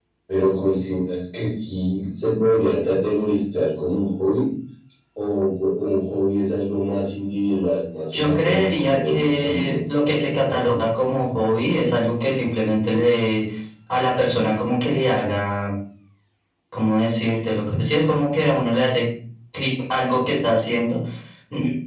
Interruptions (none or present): present